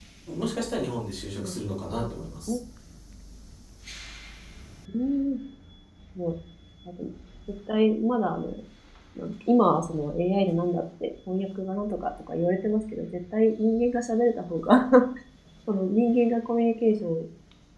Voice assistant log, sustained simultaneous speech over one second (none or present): none